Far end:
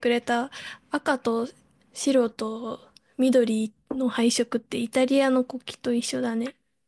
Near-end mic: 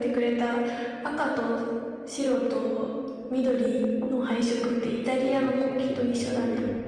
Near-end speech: present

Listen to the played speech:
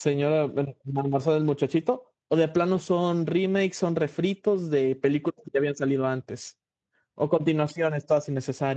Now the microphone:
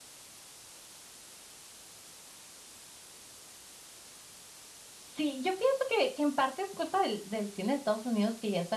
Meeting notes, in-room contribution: present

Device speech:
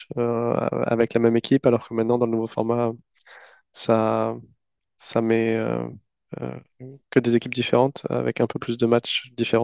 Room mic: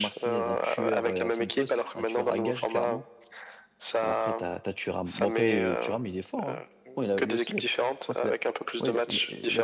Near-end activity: present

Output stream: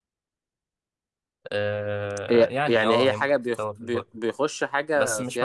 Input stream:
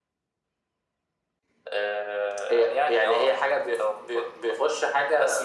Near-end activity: none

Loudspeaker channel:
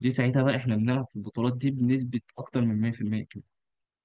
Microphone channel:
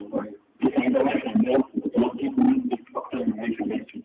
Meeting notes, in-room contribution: none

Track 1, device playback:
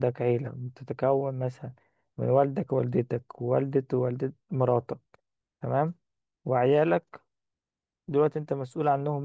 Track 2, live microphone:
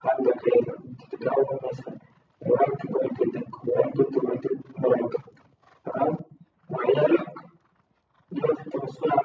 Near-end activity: none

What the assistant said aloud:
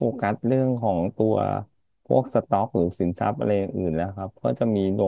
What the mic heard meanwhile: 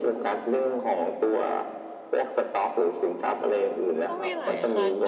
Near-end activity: present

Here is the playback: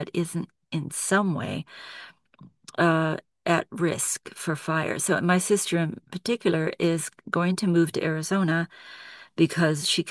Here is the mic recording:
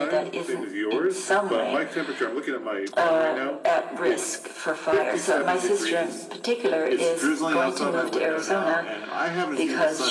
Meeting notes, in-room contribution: present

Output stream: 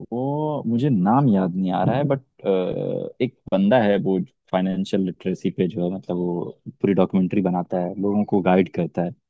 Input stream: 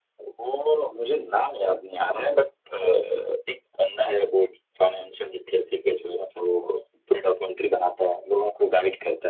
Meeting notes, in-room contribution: none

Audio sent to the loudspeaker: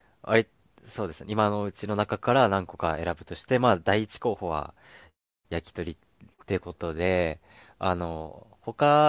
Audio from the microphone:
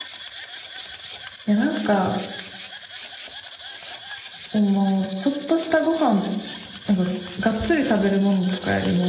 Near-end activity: present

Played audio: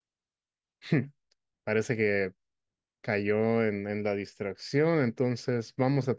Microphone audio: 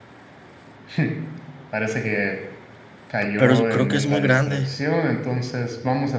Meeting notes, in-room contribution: present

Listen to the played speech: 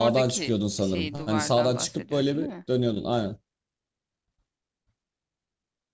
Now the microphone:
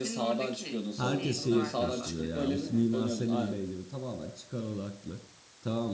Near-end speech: present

